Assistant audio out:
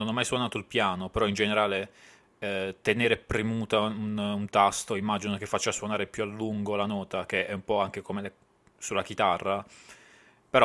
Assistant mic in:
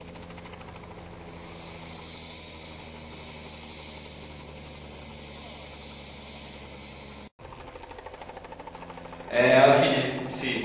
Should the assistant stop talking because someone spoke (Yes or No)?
Yes